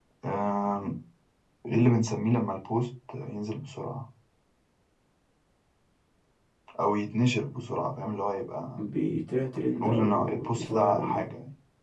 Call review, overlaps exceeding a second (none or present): present